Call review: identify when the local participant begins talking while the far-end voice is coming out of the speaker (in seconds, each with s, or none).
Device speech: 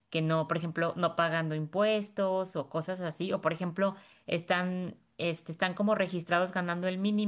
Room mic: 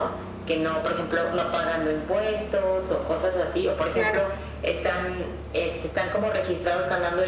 3.9 s